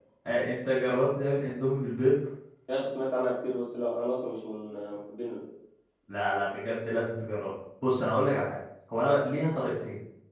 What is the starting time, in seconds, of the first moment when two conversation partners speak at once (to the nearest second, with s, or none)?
none